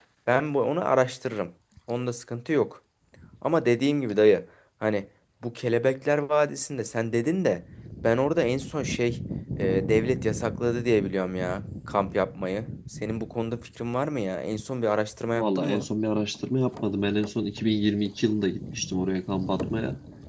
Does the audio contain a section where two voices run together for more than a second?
No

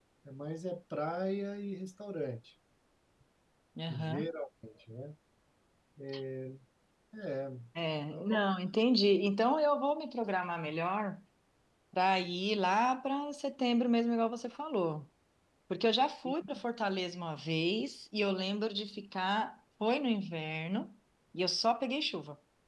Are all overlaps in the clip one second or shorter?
Yes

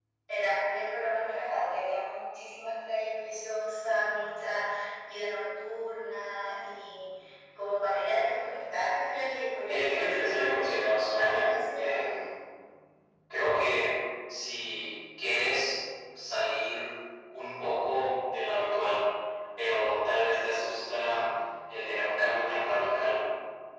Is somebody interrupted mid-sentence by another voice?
Yes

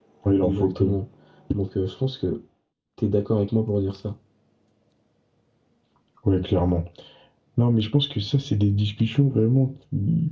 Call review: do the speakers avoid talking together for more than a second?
Yes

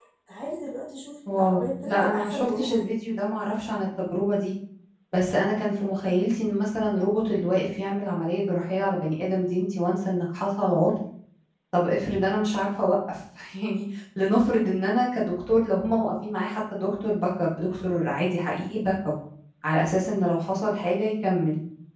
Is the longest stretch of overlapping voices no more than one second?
No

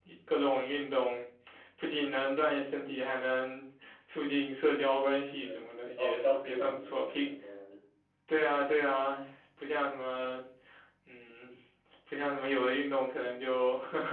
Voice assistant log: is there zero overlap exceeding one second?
No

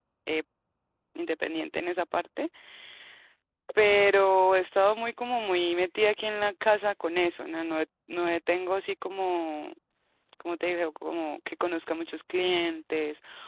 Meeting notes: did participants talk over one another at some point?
No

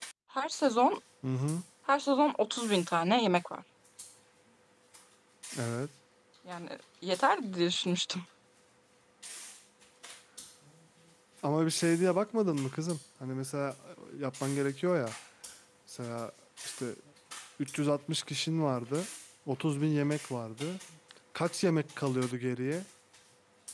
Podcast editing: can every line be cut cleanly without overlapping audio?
Yes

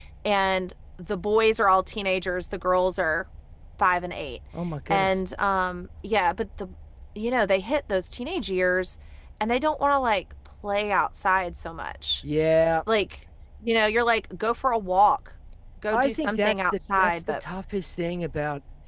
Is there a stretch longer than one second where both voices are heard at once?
Yes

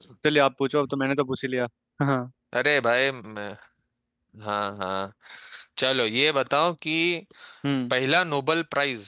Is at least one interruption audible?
No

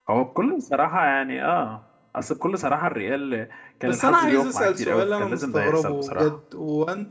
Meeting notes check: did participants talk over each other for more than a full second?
Yes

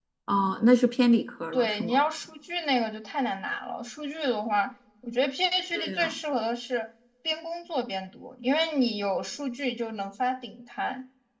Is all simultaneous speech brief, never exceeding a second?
Yes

